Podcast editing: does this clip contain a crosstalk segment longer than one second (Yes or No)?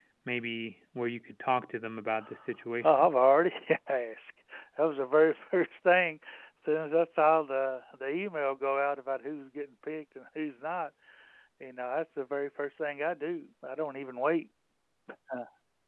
No